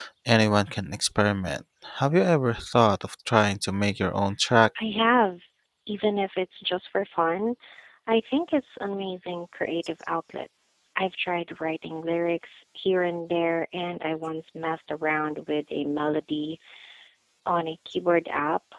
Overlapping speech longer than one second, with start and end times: none

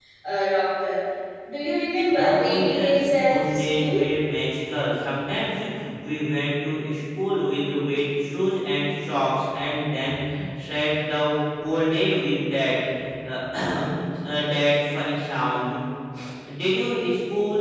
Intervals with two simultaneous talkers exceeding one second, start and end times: 2.1-4.0

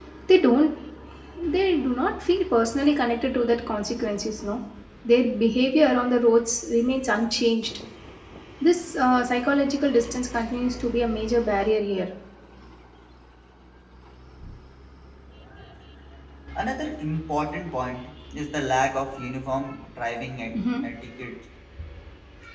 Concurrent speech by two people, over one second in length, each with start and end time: none

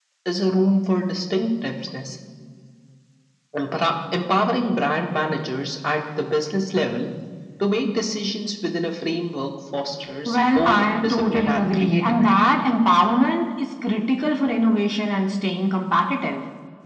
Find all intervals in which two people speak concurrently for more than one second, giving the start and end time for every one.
10.2-12.2

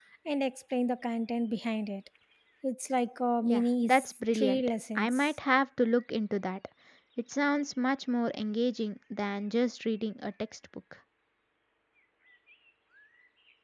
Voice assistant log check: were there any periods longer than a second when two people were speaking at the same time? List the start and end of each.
3.4-5.3

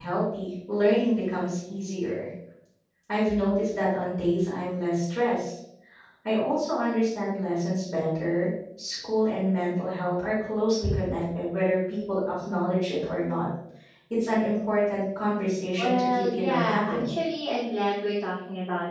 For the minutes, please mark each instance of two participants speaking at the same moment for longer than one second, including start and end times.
15.8-17.1

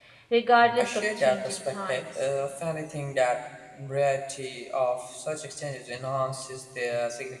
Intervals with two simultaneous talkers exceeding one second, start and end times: 0.8-2.2

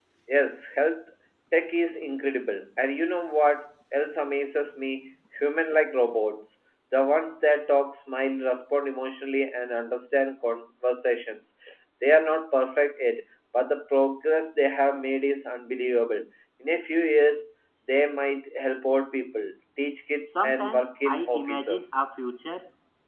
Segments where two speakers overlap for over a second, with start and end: 20.3-21.8

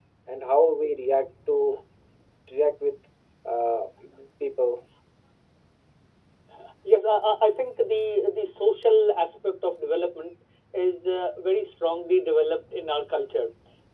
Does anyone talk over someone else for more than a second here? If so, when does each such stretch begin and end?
none

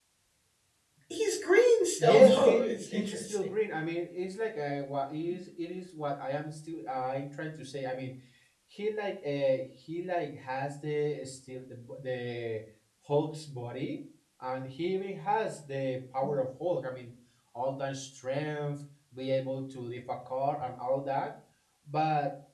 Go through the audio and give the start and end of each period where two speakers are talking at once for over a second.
2.0-3.5

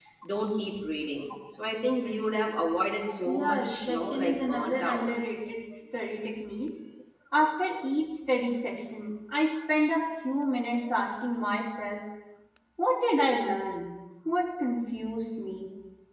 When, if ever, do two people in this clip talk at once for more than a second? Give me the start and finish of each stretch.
3.2-5.1

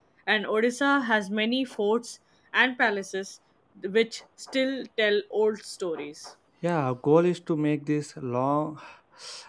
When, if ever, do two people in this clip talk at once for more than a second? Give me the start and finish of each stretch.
none

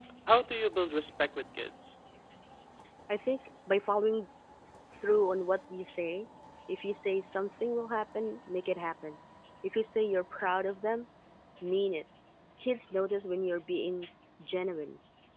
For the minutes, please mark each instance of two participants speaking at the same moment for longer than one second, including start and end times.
none

